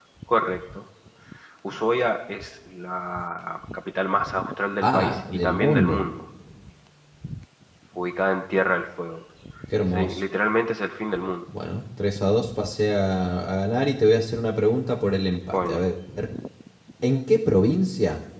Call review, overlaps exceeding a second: present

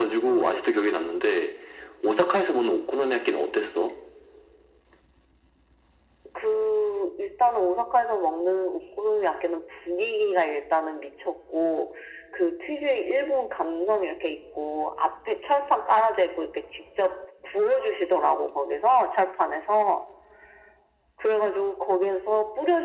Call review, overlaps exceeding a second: none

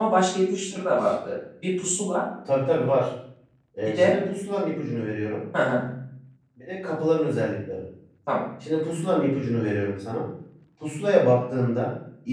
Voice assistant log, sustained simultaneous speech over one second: none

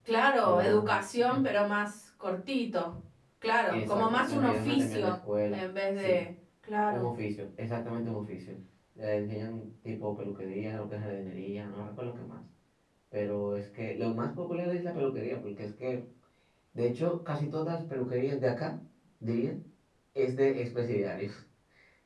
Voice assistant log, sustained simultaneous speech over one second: present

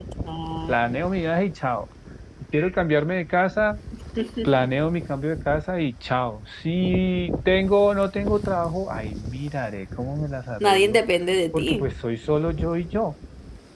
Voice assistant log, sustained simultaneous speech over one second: none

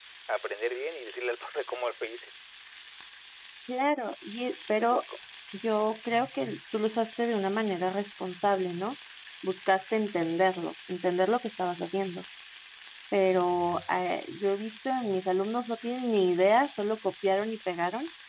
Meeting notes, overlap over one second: none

